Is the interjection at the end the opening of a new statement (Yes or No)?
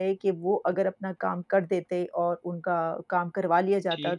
No